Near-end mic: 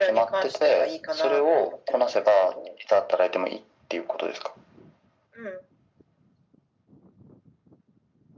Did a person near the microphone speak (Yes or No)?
No